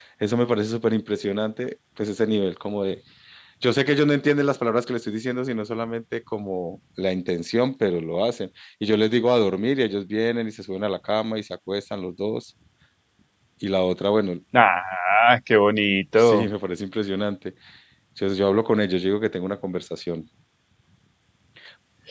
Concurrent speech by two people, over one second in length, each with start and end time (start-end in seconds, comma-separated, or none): none